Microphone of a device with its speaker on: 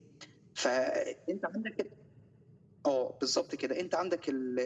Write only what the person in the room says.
none

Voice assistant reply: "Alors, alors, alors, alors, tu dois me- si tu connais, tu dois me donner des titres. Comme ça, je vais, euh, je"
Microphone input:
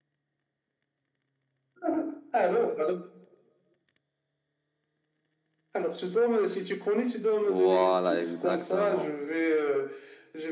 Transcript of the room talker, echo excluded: Voilà, exactement.

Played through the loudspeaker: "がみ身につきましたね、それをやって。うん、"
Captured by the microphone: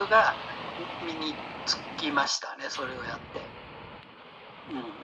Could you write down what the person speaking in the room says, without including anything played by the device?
none

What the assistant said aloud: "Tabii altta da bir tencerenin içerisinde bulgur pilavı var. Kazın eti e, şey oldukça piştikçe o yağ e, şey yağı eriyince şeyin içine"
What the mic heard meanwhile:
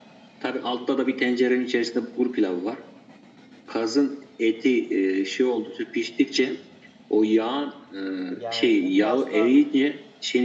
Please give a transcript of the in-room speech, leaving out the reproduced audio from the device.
yani bu biraz da

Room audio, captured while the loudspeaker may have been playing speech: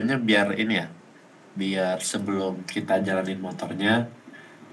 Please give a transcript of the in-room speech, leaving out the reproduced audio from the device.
none

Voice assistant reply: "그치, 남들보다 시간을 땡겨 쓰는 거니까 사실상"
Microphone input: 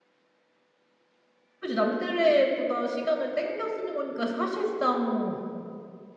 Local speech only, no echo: none

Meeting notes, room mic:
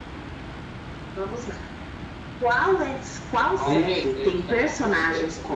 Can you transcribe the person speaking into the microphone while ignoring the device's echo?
Ixi.

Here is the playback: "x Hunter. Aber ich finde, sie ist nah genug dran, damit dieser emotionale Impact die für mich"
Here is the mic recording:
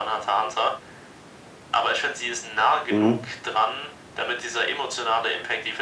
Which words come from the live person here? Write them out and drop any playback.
Mhm.

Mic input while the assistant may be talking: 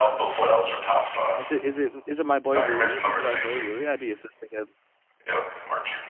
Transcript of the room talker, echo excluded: is it is it is it my boy Rui? Is it my boy Rui? I'd be assisting him.

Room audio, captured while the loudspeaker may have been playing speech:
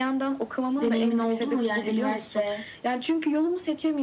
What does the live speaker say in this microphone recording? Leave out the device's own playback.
deneyimin oldu mu yani üniversite

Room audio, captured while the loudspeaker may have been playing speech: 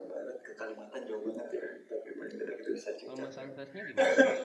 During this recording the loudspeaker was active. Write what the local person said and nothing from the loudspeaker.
Kalau Mas Ansasnya gimana?

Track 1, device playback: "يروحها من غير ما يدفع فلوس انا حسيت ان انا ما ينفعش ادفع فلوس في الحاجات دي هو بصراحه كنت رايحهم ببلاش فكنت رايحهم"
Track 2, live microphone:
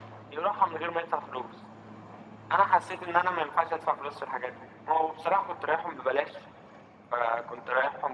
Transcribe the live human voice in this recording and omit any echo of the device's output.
none

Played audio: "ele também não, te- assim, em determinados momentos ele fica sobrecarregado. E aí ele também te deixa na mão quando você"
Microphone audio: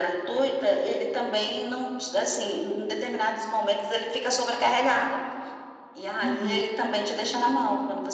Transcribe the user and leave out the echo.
Uhum,

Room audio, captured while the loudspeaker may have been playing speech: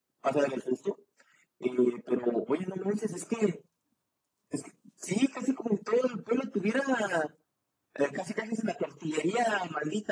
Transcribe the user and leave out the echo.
none

